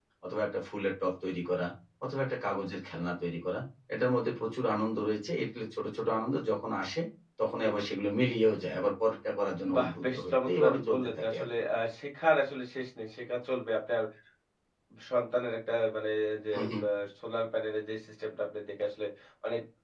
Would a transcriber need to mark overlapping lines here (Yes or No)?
Yes